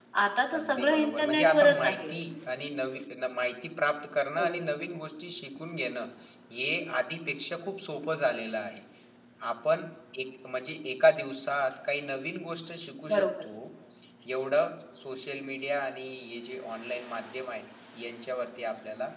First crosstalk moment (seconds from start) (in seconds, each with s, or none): 0.6 s